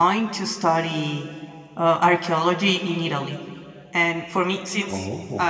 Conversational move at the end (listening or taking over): listening